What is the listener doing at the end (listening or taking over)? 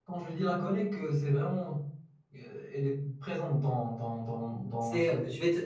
taking over